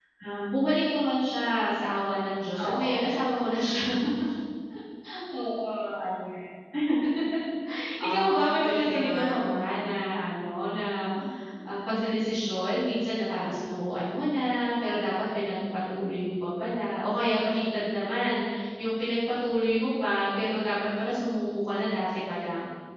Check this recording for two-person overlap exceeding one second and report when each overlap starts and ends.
8.1-9.4

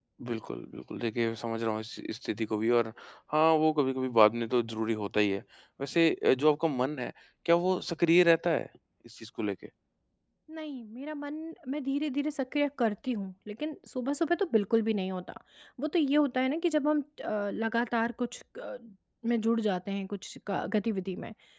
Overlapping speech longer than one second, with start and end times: none

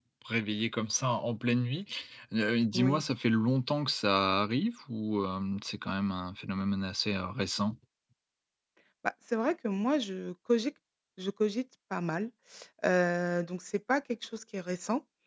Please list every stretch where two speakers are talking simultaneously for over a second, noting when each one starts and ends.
none

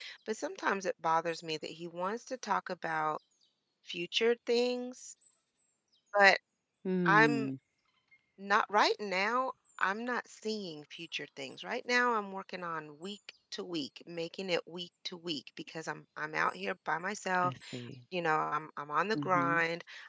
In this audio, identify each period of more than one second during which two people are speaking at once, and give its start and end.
none

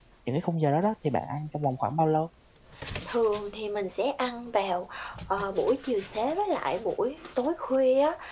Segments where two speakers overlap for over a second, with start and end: none

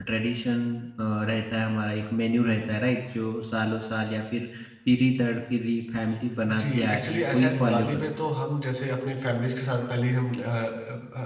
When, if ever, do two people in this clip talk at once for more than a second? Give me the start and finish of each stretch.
6.5-8.3

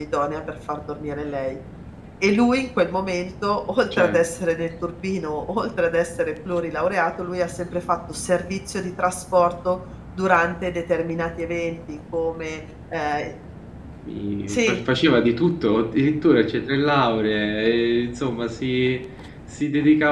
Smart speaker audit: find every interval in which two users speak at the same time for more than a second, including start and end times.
none

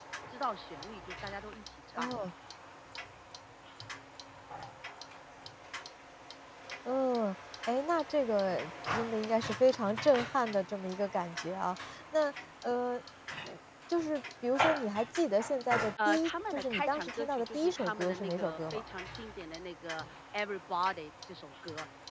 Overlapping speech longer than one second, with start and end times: 16.1-18.8

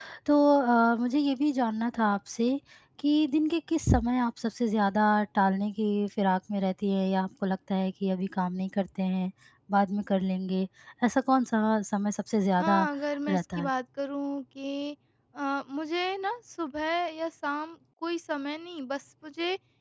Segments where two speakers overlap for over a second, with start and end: none

